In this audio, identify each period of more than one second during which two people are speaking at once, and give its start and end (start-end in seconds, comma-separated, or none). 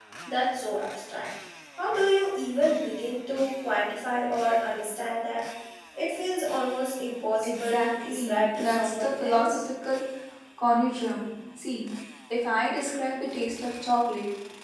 7.4-9.6